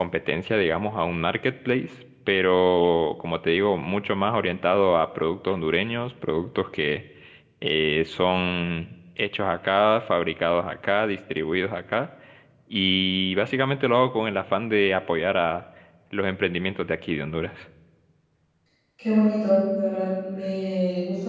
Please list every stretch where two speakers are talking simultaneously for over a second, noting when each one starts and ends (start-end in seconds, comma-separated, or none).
none